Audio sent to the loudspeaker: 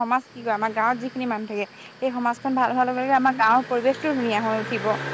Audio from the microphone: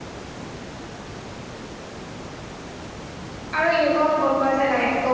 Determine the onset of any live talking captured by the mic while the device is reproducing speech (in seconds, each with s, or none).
3.6 s